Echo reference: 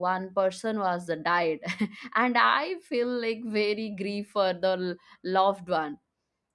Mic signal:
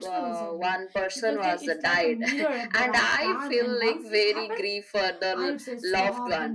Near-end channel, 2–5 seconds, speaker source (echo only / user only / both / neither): both